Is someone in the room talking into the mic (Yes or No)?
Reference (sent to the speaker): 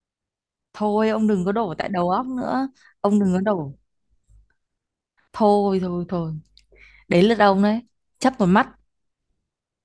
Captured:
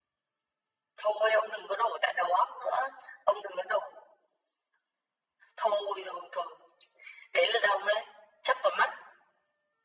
No